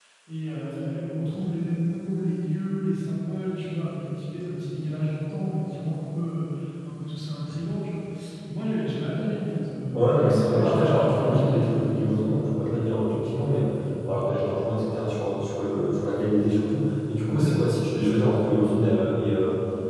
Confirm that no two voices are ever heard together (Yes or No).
No